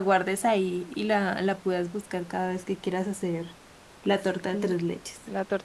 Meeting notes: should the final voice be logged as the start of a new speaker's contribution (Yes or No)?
Yes